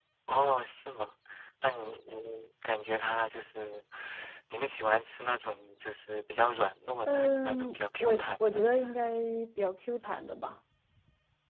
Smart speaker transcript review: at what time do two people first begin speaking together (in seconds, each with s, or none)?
7.1 s